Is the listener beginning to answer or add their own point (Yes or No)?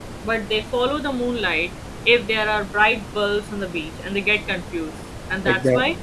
No